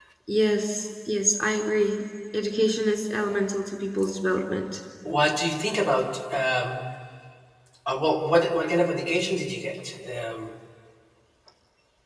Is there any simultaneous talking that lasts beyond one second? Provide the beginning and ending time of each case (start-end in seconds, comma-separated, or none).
none